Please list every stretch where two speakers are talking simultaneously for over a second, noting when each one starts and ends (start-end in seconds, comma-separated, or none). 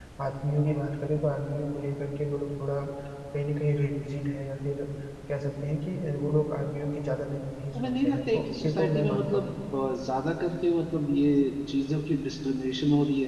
7.8-9.5